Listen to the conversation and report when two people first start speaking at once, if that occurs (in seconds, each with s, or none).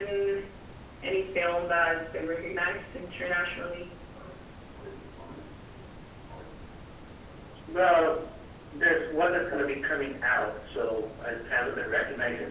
none